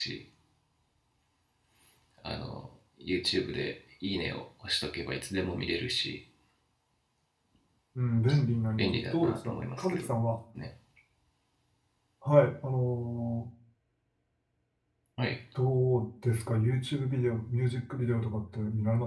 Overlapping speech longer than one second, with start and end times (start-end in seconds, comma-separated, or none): 8.8-10.0